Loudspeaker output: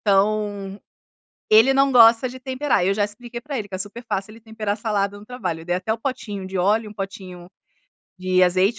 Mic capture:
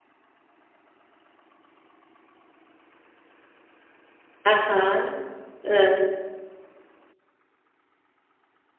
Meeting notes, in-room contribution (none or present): present